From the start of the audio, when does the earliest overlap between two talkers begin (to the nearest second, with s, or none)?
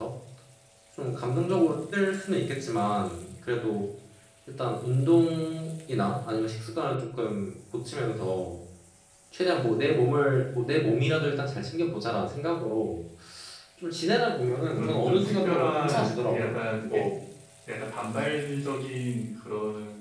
15 s